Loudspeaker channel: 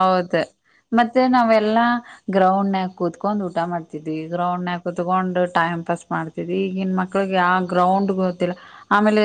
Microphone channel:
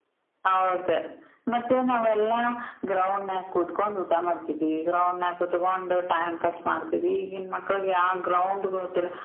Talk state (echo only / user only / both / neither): echo only